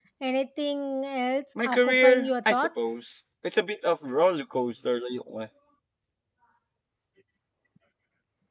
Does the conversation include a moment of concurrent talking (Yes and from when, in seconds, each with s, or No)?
Yes, from 1.6 s